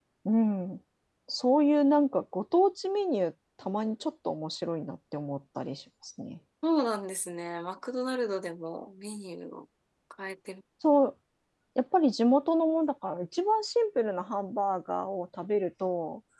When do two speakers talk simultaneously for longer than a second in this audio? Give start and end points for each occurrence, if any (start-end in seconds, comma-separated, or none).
none